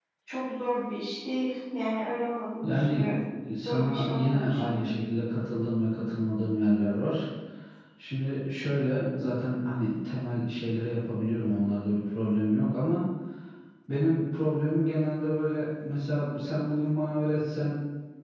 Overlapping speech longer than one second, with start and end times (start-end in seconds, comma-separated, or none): 3.6-4.9